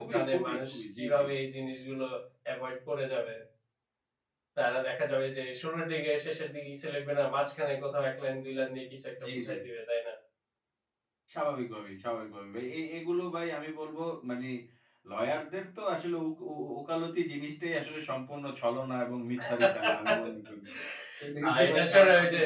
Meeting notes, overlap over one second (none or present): present